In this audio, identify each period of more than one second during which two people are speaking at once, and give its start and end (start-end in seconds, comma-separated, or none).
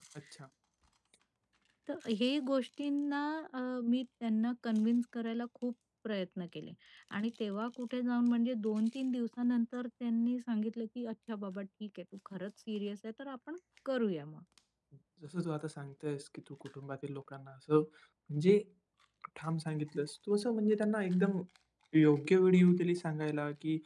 none